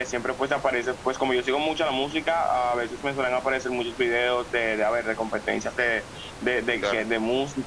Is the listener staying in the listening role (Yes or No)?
Yes